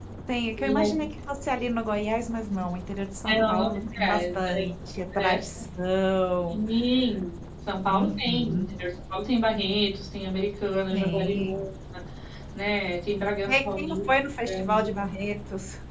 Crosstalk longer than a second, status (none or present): present